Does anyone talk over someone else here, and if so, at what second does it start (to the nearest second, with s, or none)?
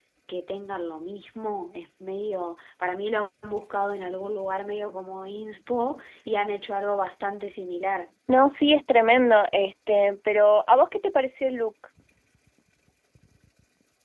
none